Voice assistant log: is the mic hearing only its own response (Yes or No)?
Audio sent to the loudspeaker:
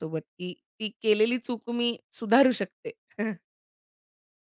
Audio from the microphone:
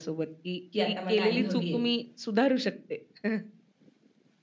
No